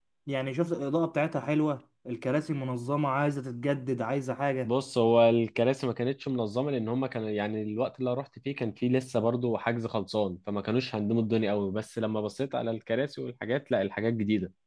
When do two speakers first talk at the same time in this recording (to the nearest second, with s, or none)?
none